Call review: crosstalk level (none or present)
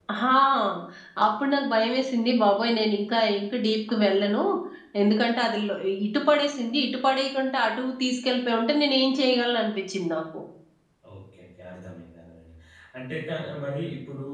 none